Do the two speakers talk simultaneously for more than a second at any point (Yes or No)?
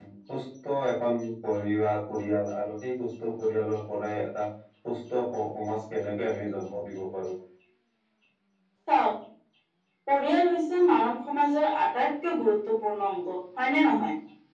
No